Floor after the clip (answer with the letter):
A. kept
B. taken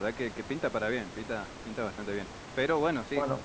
A